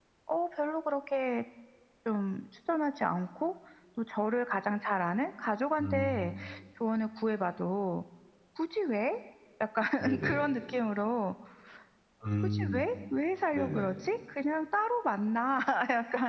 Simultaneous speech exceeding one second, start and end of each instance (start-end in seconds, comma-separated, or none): none